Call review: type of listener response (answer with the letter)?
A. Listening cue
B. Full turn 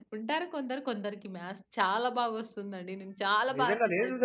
B